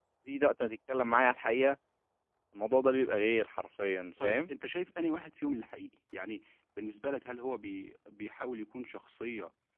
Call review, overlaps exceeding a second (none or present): none